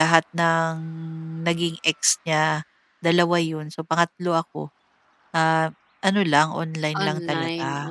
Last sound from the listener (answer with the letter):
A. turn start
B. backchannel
A